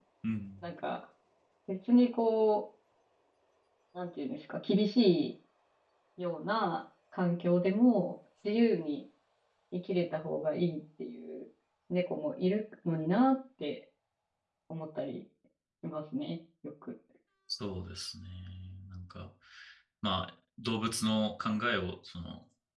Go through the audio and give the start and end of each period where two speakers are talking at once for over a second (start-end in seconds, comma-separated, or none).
none